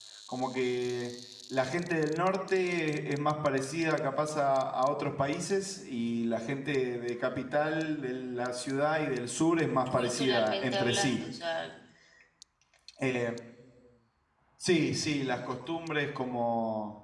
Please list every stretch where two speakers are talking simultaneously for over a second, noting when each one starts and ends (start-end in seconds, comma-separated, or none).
9.9-11.2